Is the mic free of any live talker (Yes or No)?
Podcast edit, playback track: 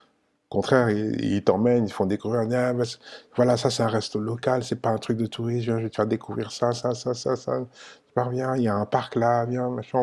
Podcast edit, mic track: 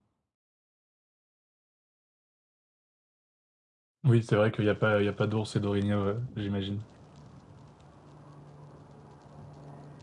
No